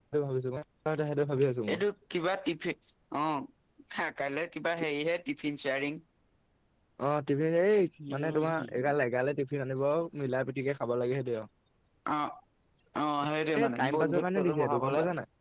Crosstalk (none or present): present